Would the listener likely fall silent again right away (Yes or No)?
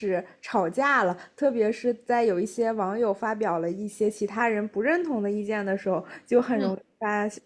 Yes